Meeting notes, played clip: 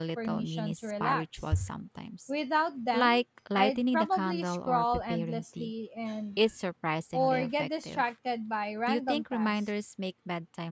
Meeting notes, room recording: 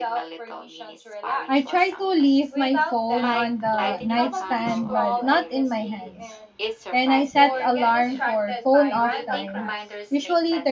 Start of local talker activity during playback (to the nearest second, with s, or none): 1 s